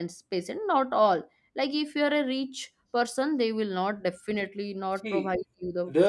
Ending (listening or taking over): taking over